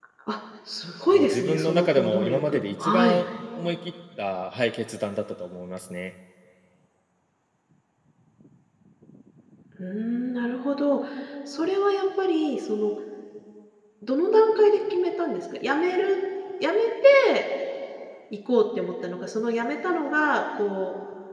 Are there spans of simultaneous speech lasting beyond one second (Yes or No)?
Yes